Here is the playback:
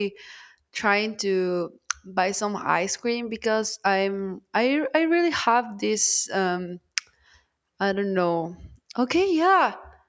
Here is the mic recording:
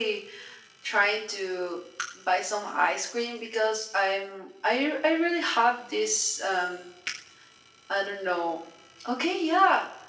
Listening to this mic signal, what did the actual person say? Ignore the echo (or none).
none